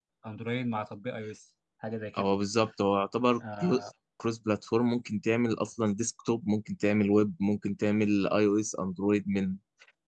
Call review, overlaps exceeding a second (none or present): none